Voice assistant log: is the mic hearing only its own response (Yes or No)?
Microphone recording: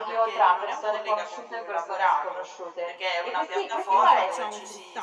No